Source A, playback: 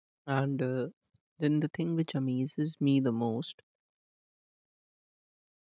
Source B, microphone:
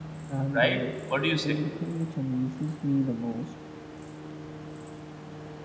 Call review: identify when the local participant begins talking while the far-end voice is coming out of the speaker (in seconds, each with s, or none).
0.5 s